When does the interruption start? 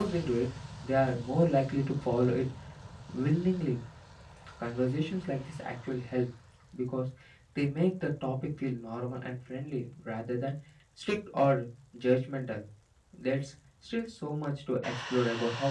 none

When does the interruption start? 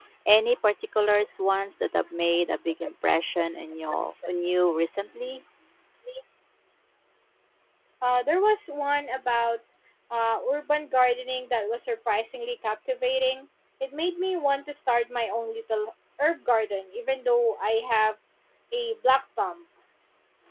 none

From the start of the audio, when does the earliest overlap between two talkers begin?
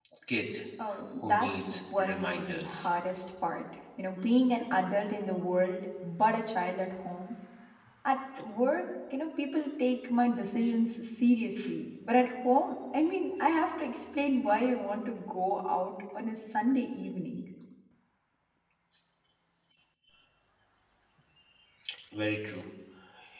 1.2 s

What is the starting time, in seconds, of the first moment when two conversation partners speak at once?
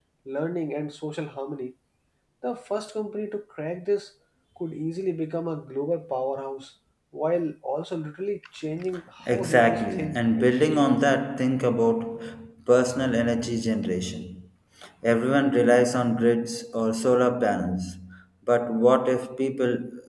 9.3 s

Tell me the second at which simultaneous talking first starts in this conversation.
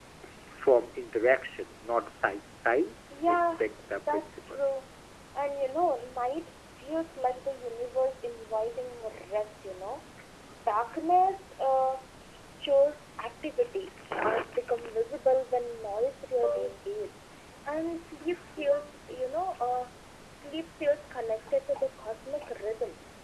3.1 s

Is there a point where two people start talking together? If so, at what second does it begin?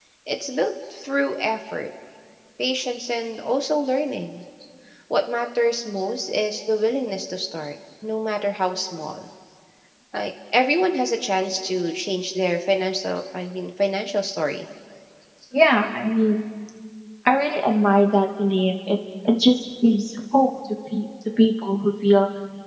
none

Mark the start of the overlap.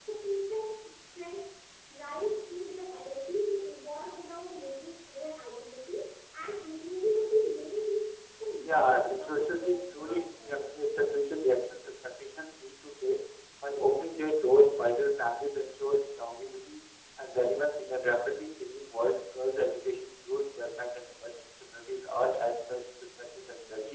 8.6 s

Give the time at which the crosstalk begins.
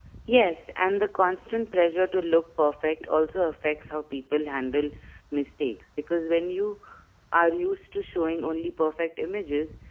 none

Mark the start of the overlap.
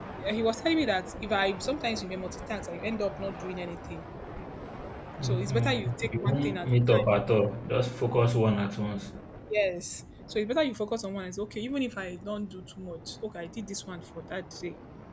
5.2 s

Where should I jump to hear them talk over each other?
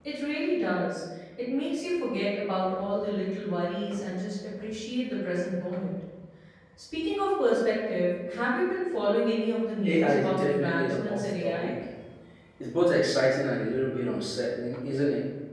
9.8 s

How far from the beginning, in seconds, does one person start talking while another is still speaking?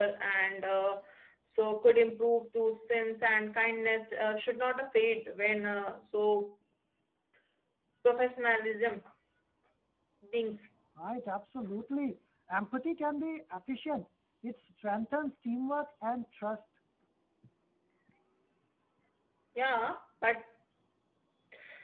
none

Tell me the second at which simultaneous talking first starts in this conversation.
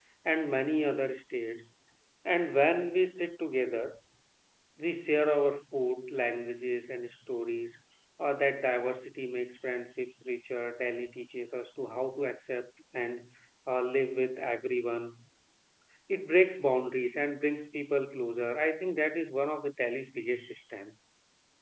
none

